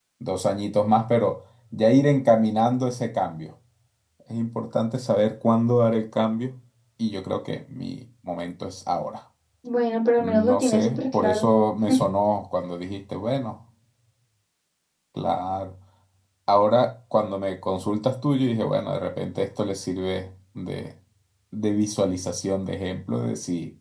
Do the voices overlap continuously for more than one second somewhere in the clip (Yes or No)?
Yes